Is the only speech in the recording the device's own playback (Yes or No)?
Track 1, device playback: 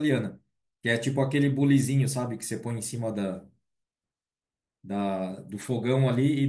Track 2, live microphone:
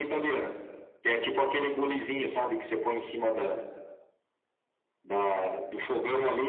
Yes